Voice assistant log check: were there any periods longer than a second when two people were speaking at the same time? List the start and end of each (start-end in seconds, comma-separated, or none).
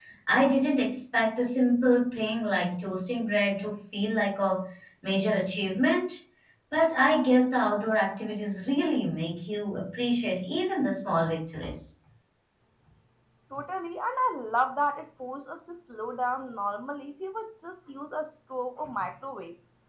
none